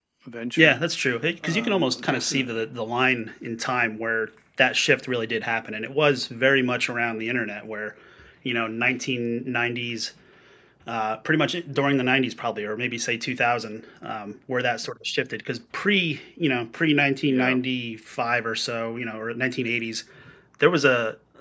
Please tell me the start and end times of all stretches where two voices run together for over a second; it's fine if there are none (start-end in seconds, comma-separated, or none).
1.4-2.6